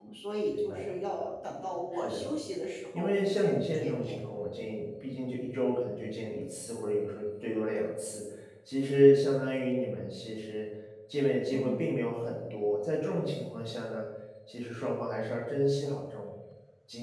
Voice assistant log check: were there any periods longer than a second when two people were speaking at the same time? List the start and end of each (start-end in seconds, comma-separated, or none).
3.0-4.2